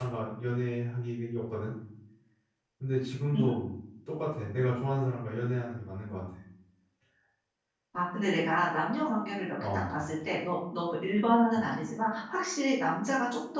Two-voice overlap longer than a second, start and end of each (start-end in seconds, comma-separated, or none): none